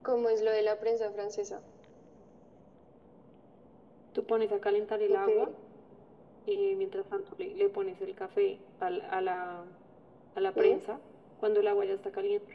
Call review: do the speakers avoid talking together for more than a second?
Yes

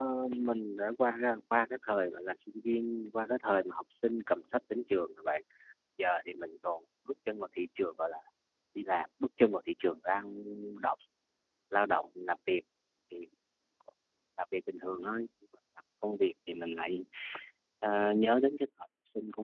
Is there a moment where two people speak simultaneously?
No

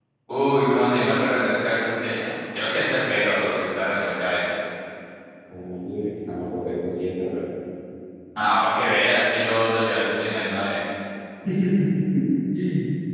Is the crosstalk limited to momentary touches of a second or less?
Yes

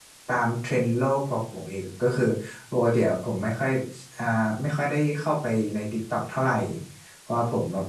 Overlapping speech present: No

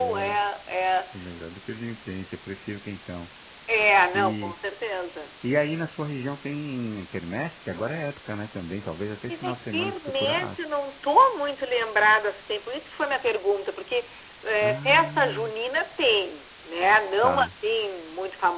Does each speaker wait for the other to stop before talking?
No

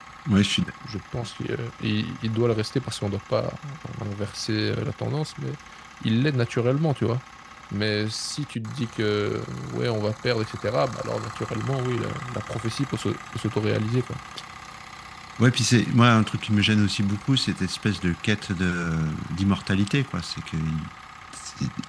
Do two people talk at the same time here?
No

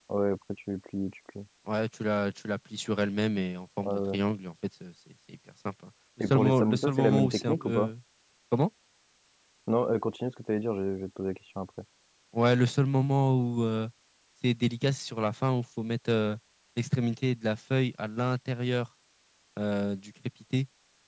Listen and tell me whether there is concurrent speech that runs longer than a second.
Yes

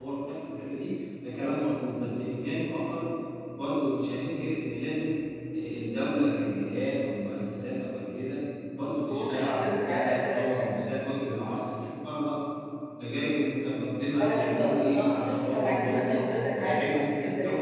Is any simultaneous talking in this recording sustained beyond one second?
Yes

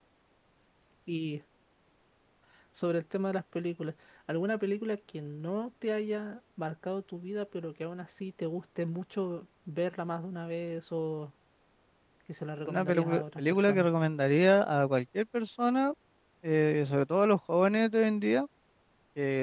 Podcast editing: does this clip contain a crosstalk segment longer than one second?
Yes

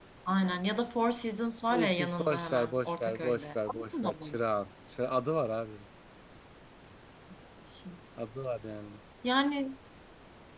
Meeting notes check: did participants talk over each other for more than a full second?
Yes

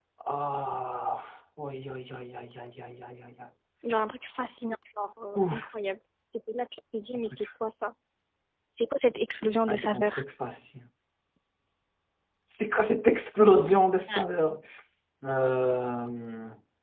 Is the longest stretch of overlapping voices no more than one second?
Yes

